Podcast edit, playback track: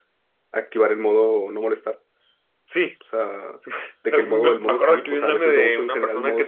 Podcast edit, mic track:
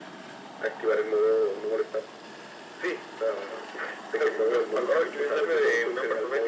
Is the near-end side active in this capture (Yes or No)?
No